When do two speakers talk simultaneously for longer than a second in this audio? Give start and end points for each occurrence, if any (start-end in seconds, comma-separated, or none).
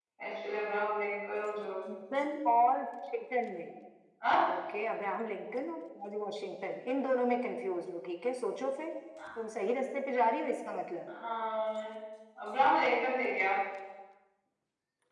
none